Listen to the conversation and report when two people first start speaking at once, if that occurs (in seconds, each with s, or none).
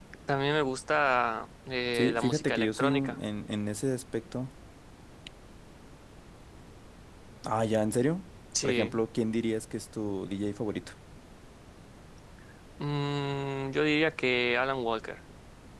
1.9 s